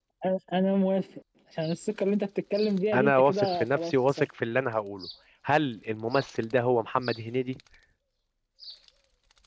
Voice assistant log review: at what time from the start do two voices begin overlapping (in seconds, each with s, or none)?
2.9 s